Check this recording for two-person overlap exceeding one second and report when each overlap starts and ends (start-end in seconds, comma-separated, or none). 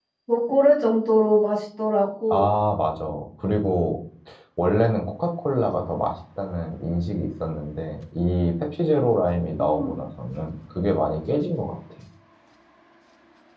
none